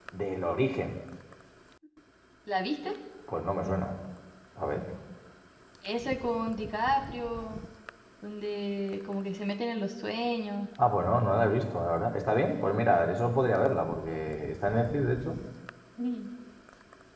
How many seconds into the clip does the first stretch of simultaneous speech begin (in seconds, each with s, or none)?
none